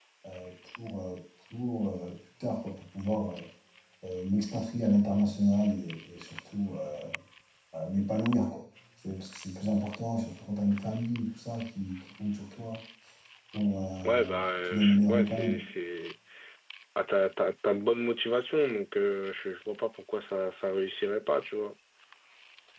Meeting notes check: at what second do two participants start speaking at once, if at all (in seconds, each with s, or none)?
14.0 s